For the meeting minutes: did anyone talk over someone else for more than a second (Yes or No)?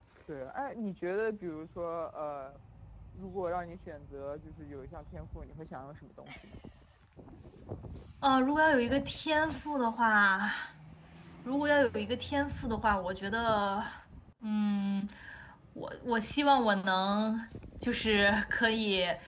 No